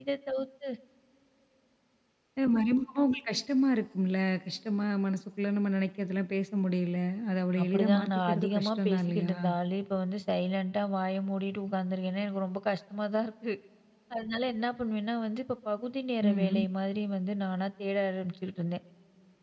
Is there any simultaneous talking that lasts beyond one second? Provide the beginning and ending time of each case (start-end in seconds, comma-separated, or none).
7.6-9.3